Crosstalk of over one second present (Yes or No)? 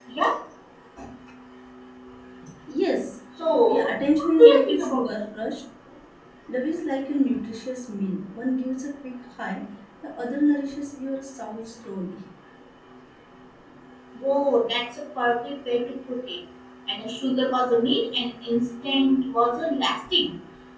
Yes